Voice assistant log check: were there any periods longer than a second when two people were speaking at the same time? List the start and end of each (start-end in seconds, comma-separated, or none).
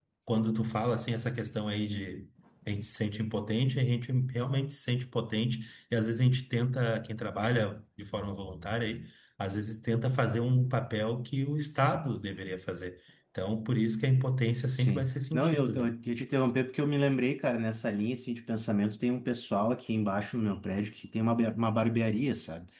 14.7-15.9